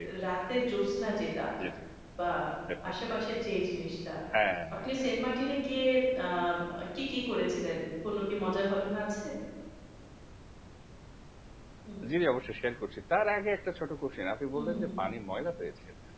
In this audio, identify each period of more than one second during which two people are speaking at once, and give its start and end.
none

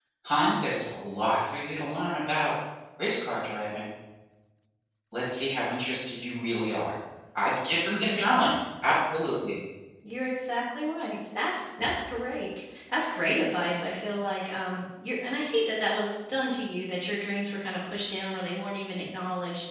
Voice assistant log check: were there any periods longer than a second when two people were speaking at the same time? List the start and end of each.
none

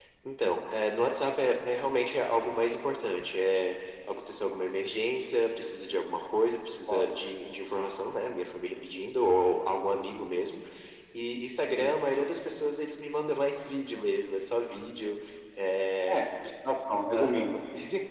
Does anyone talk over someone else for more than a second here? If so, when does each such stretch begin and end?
none

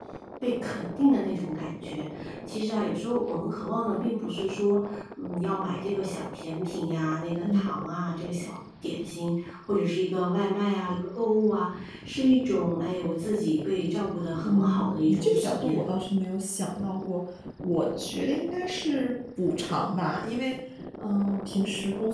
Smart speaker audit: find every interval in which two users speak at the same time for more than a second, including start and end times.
14.4-15.8

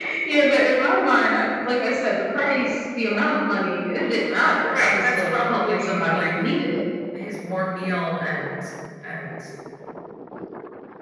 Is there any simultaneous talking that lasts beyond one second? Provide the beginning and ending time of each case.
4.7-6.3

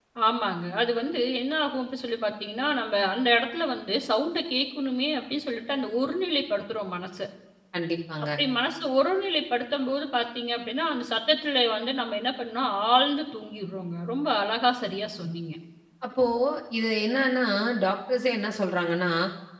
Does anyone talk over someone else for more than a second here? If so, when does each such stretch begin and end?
none

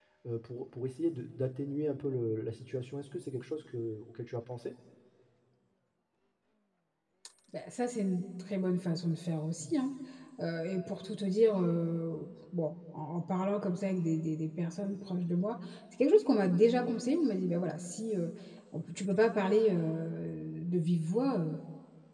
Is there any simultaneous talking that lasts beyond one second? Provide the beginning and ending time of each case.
none

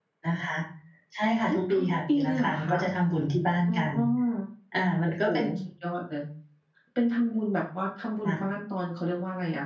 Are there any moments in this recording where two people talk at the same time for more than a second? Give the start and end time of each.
1.5-2.7

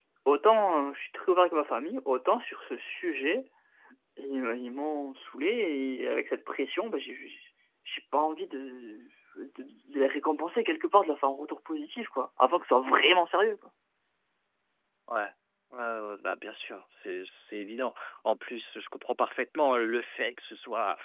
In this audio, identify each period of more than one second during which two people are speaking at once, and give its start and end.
none

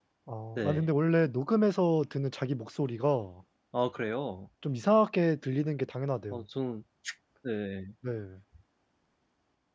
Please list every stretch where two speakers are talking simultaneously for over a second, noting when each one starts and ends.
none

